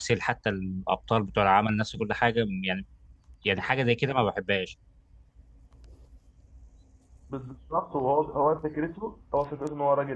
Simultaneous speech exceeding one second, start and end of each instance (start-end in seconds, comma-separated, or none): none